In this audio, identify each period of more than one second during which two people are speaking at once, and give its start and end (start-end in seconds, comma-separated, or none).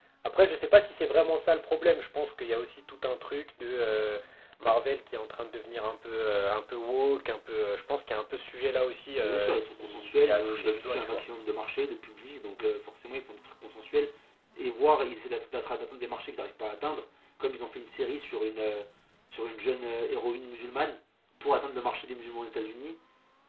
9.2-11.2